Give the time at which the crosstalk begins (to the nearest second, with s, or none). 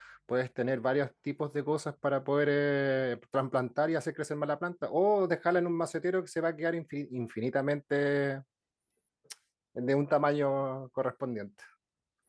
none